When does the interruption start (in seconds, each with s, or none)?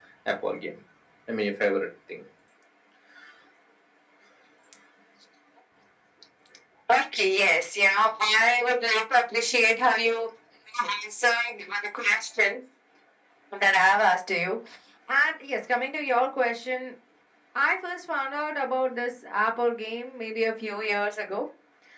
none